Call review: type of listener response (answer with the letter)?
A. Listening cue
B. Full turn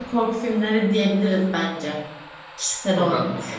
B